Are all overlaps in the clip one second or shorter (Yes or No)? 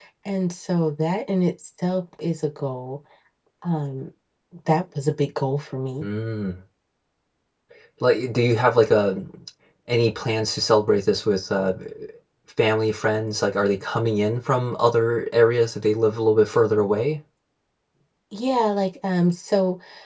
Yes